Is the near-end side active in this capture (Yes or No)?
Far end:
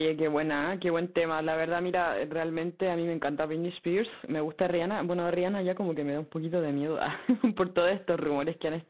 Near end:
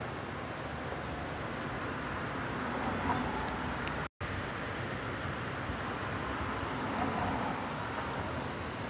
No